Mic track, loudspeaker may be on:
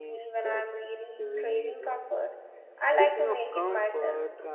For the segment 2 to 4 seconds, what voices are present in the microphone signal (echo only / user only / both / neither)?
both